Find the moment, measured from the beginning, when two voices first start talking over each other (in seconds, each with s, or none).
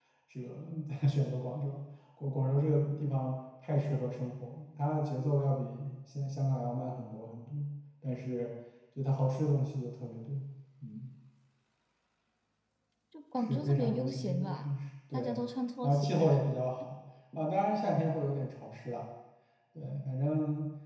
13.4 s